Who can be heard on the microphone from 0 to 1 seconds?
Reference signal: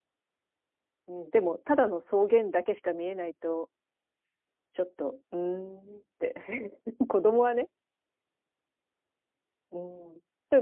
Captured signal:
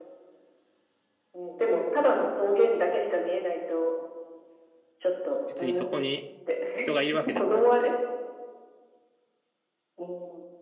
neither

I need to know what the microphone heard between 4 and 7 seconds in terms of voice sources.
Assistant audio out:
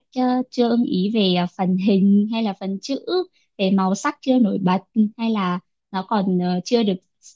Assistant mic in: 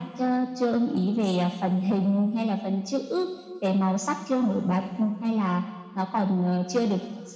echo only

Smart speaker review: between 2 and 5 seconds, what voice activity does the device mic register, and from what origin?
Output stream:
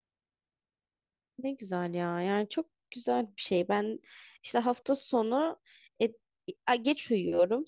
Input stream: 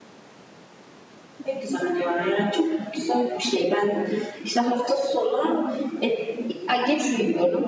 echo only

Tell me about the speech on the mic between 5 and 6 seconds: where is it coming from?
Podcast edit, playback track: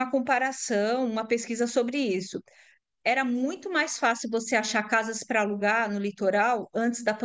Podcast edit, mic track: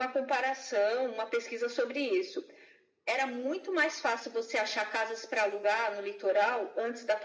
echo only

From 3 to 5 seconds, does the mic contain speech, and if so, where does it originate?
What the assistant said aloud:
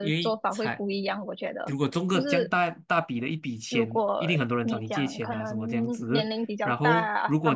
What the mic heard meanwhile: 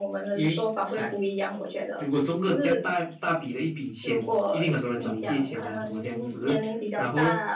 echo only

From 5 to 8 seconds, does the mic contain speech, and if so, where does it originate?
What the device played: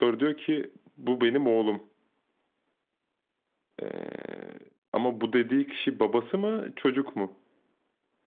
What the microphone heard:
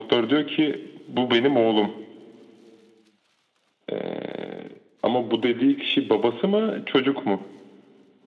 echo only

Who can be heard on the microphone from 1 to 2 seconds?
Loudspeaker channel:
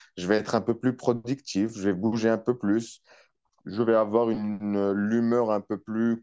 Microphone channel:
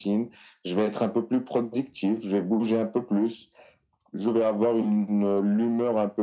echo only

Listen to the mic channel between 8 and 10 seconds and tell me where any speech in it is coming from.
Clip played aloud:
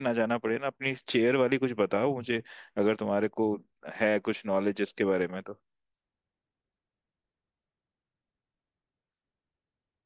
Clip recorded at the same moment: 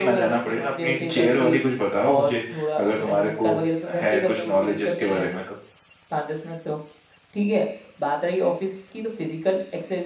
user only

